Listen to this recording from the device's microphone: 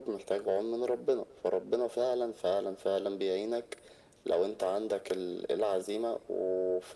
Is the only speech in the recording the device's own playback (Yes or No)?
Yes